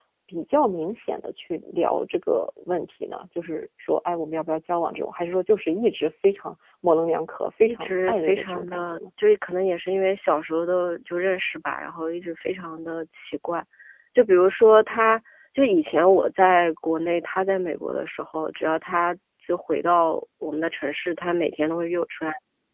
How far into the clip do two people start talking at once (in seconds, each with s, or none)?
7.6 s